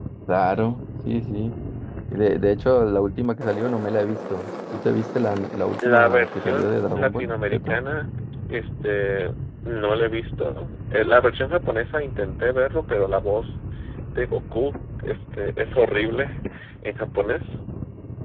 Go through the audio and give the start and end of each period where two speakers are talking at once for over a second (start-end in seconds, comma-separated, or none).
5.8-7.8